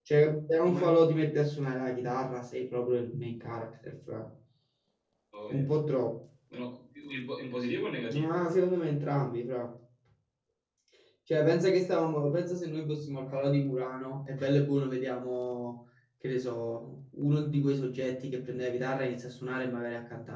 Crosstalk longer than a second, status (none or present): none